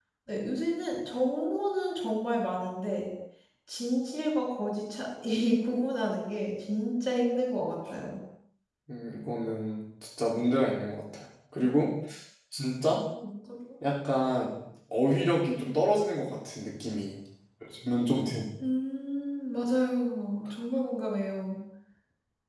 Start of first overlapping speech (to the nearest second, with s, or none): none